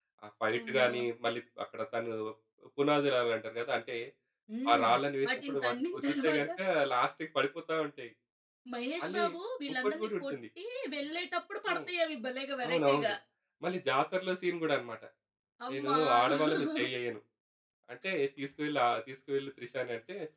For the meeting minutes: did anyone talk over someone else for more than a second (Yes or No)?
Yes